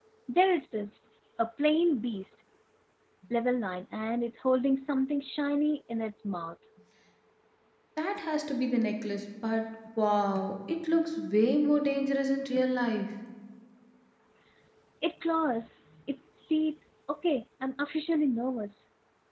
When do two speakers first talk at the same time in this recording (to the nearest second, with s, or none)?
none